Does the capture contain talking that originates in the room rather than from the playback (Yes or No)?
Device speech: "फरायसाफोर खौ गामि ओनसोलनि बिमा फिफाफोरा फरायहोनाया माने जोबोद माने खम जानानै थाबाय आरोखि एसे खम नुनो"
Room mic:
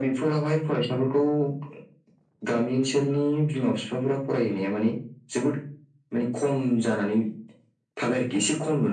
No